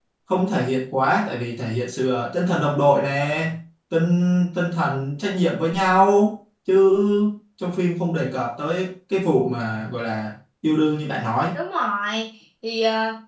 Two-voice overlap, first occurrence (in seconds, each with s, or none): none